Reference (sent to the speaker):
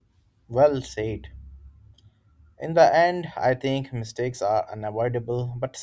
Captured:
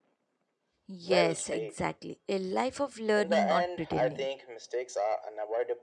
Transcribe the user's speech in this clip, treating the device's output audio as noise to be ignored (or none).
Yes, exactly. A life of learning, not pretending.